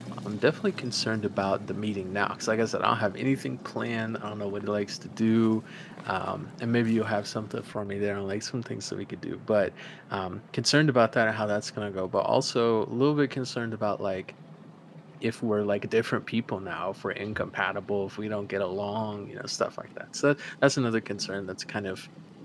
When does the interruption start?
none

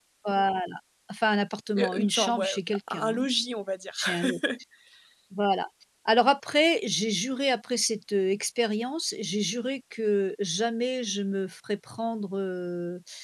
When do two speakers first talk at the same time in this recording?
2 s

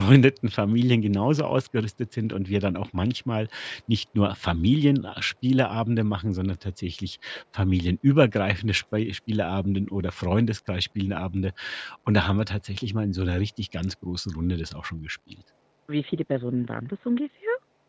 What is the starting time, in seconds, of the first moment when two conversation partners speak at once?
none

